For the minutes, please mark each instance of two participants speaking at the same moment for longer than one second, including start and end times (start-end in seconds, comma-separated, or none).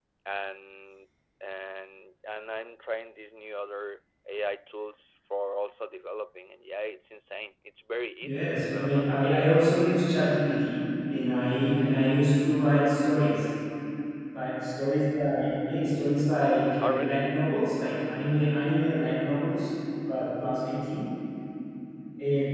8.2-9.6